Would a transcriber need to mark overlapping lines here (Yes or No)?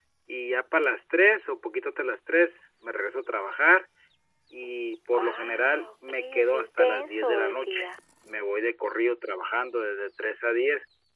Yes